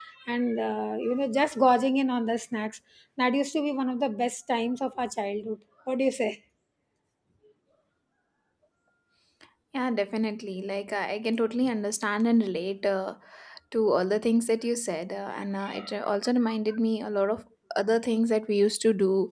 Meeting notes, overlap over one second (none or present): none